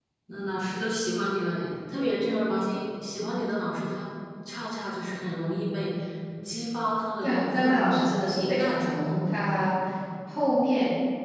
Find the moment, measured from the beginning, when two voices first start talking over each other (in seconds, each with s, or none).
7.2 s